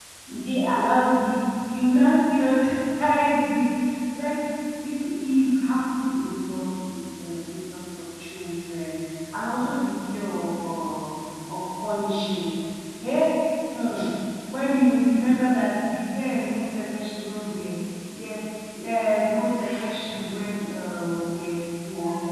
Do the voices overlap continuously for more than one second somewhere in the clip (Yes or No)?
No